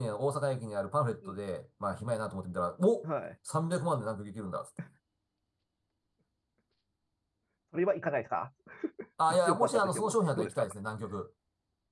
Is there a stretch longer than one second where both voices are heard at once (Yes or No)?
Yes